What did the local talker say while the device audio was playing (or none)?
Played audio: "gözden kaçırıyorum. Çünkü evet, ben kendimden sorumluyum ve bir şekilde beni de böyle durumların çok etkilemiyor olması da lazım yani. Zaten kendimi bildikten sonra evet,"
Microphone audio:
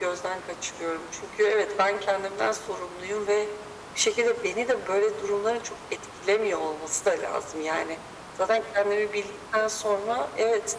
none